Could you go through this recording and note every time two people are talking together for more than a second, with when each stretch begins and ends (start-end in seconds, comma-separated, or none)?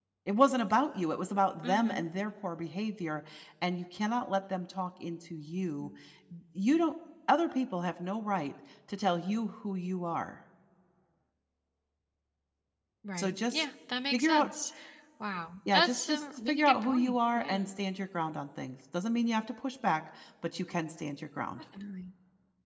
15.7-17.7